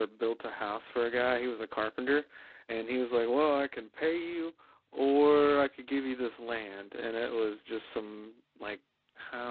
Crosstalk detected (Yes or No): No